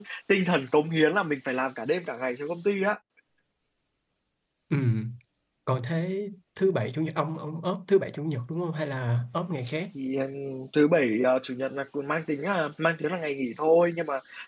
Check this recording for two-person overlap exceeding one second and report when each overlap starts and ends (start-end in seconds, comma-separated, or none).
none